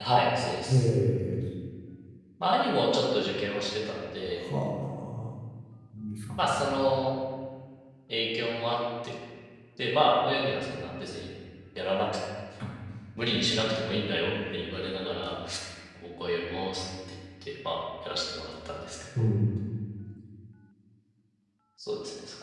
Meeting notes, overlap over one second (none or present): none